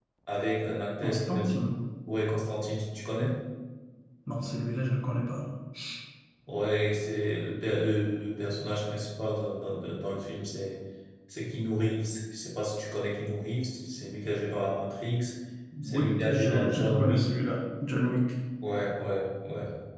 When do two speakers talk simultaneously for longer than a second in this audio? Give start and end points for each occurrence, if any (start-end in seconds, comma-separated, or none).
15.8-17.3